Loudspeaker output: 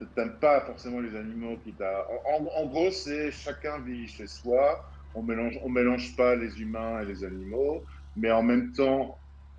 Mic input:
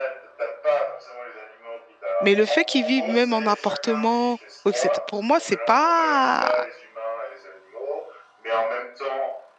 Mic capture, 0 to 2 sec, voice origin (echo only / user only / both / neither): echo only